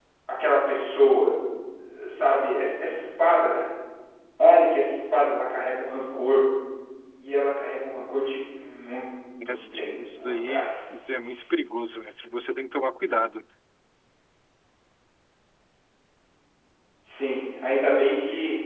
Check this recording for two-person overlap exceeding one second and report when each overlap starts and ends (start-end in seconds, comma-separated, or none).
9.4-10.8